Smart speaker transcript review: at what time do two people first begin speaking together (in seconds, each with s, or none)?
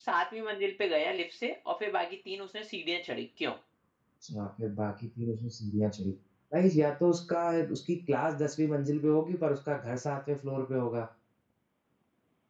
none